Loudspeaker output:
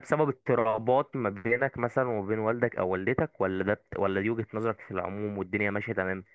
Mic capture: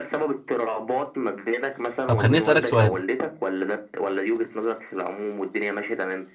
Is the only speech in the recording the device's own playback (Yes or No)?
No